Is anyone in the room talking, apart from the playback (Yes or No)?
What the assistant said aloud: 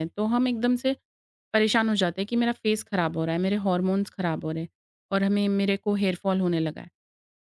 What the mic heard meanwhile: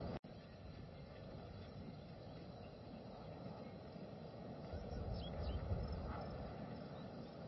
No